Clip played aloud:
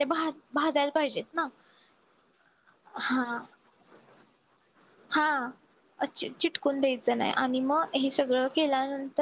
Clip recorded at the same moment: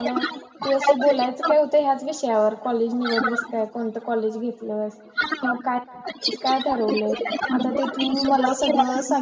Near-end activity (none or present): present